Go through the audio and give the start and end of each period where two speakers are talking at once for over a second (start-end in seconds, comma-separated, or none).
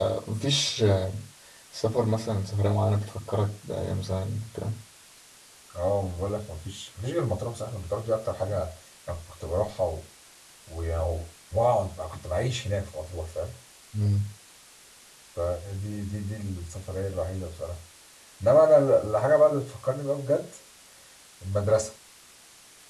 none